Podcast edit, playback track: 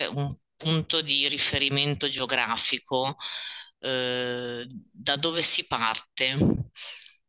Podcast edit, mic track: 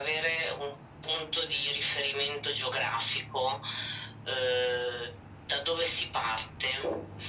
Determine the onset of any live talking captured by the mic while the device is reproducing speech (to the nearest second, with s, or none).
none